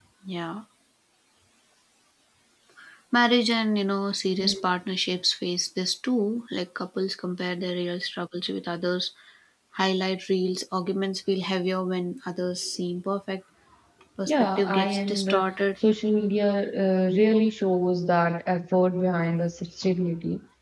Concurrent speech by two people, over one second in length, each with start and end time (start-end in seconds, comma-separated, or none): 14.3-15.5